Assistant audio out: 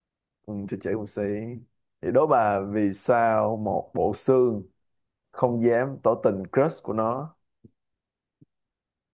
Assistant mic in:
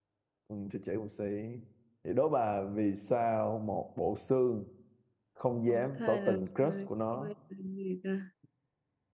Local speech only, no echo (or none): Có thai là thai. Nuôi là gì ta?